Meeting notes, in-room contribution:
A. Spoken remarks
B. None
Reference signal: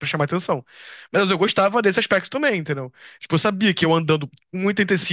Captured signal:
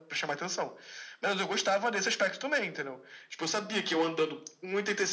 B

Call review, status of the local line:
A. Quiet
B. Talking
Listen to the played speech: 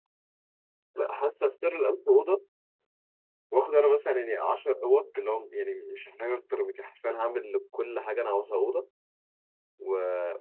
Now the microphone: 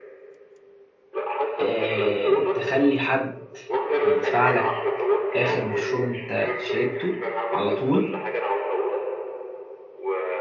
B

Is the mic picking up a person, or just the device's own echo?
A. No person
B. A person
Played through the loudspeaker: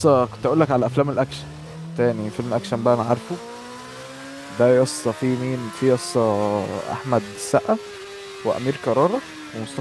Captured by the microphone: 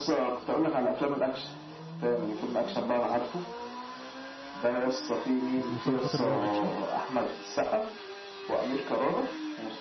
B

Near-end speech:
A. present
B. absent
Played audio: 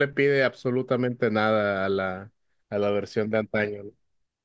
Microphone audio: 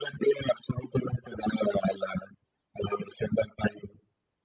B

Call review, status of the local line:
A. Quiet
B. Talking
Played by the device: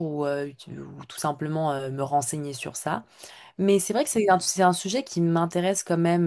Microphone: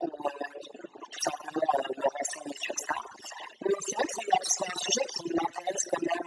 A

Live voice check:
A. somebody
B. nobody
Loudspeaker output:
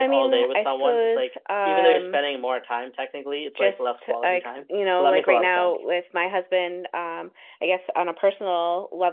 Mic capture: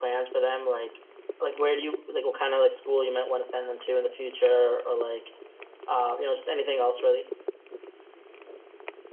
A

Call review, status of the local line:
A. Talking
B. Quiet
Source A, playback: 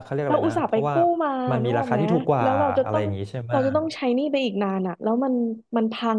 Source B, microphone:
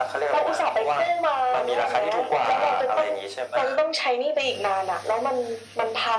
B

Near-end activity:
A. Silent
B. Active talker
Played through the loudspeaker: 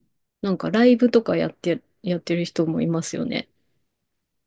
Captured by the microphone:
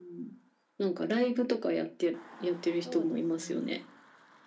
B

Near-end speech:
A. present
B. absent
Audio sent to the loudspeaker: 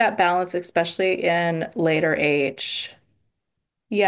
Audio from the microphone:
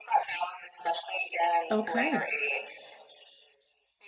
A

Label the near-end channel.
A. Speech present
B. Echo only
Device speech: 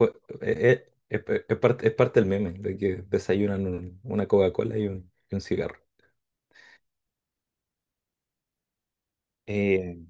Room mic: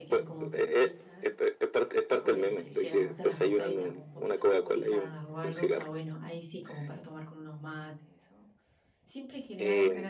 A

